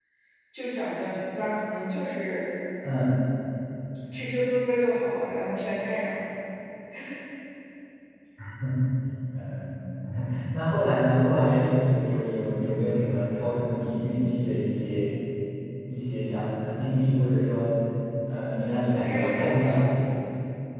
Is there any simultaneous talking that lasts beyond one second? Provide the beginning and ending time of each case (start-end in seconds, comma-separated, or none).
18.5-19.9